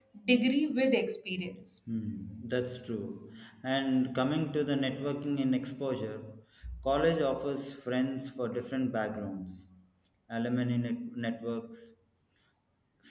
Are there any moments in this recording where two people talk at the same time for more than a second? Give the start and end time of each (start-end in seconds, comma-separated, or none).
none